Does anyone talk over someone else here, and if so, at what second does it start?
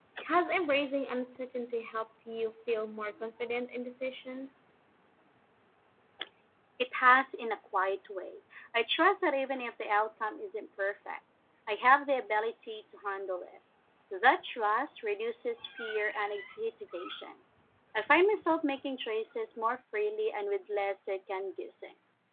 none

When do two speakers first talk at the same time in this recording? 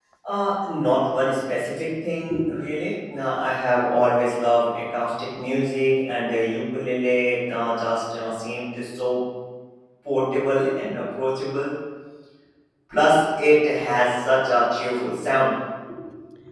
none

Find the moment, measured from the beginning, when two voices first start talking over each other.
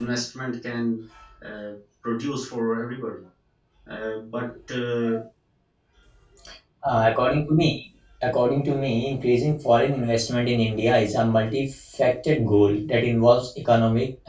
none

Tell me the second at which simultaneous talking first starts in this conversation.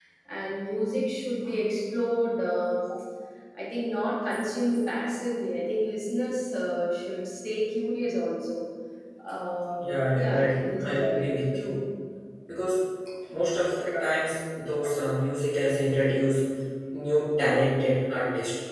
9.8 s

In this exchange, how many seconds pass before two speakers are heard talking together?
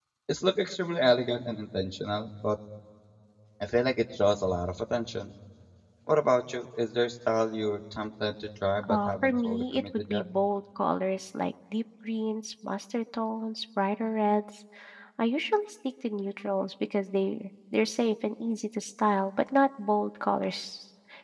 8.8 s

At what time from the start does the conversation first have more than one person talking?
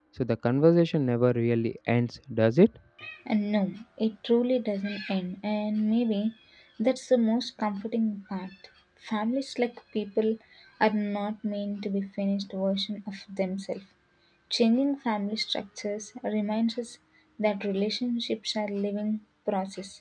none

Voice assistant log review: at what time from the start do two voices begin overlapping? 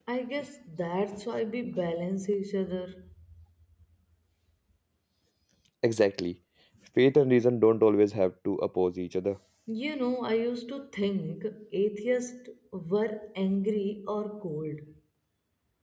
none

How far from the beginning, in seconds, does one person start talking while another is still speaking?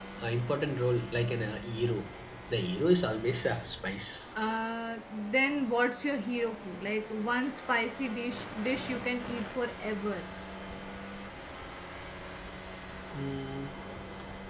none

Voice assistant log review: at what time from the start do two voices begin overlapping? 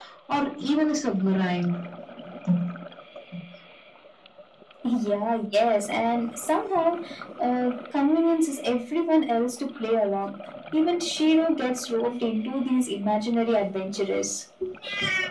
none

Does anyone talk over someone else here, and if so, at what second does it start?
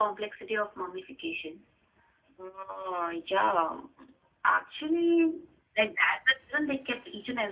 none

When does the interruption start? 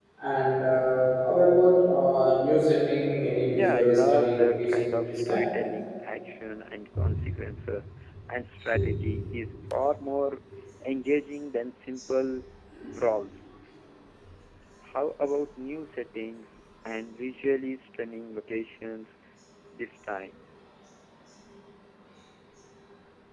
3.5 s

